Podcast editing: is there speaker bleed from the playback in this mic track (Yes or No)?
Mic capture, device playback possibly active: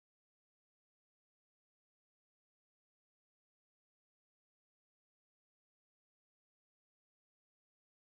No